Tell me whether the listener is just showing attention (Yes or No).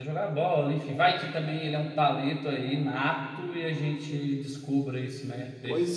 No